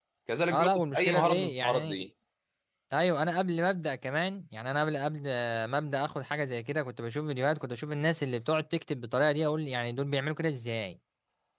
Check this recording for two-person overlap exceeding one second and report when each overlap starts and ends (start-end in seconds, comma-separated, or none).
0.5-2.0